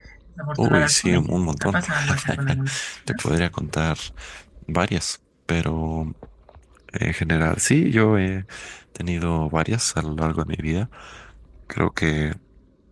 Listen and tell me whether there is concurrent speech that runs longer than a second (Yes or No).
Yes